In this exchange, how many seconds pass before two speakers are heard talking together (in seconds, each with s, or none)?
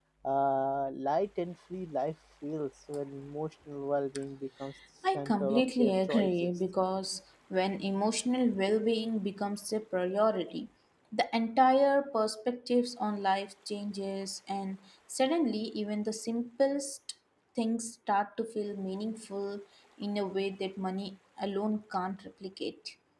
5.1 s